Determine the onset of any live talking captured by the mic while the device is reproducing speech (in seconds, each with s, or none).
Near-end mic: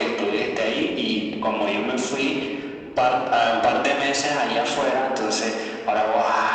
none